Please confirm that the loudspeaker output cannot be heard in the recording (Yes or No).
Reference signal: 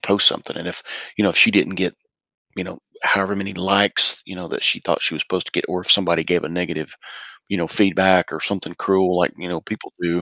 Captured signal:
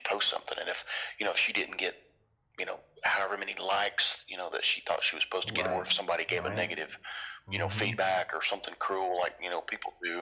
No